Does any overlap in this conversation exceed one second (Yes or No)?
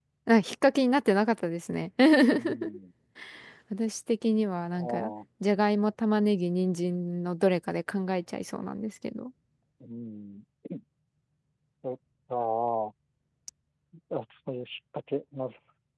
No